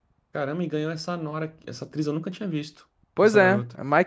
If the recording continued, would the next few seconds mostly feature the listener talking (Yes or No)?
Yes